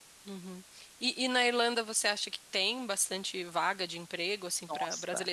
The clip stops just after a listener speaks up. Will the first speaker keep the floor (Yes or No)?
Yes